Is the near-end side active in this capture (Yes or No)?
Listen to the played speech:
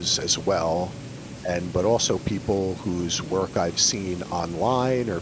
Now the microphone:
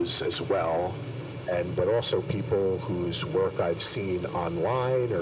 No